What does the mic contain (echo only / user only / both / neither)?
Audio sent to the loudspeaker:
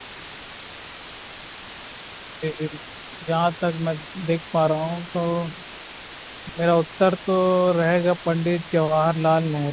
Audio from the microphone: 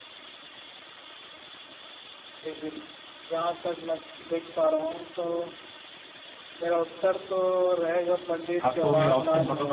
both